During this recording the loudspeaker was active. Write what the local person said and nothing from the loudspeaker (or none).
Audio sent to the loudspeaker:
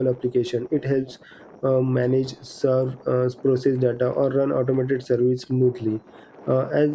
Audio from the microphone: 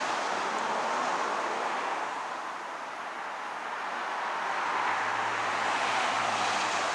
none